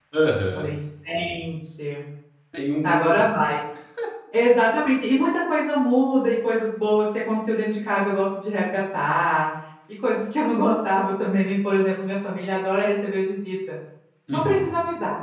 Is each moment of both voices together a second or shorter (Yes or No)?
Yes